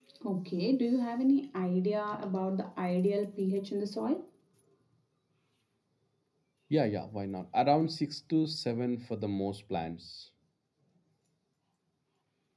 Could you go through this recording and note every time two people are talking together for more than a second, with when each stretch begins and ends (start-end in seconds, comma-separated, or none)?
none